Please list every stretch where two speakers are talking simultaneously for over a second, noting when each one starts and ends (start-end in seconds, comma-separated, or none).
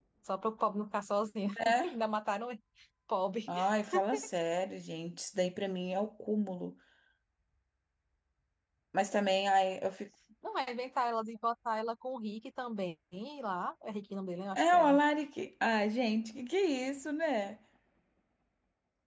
none